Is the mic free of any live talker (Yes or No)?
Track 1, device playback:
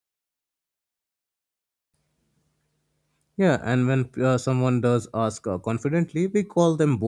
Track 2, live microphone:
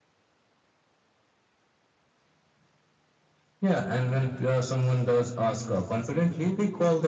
Yes